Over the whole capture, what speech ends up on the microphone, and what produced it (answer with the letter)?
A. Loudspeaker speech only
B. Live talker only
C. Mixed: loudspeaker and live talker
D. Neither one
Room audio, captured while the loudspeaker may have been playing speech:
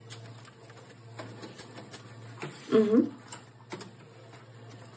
B